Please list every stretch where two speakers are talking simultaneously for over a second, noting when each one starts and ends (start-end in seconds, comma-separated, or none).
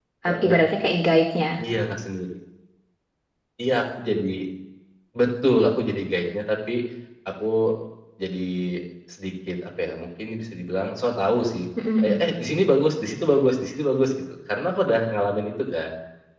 none